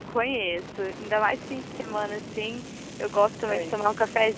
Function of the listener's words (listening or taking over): listening